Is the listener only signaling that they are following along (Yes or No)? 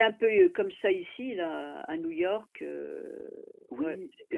No